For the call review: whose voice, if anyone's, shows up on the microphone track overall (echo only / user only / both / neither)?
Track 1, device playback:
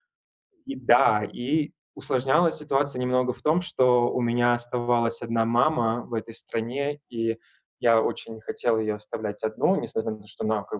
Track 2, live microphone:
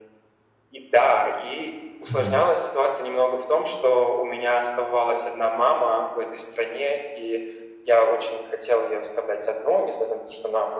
both